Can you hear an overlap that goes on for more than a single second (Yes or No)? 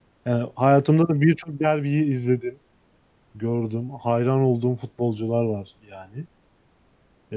No